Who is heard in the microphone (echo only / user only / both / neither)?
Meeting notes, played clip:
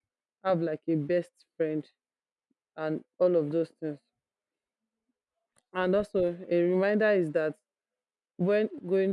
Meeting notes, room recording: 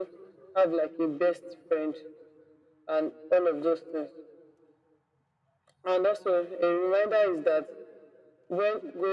echo only